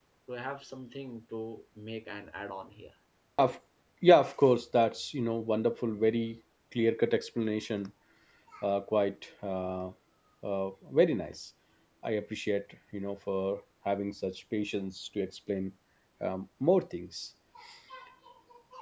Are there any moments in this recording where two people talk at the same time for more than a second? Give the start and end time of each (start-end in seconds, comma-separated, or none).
none